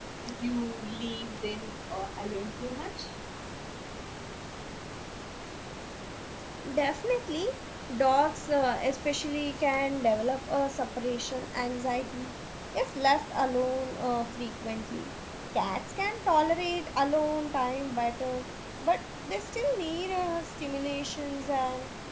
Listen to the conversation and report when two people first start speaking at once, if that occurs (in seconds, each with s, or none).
none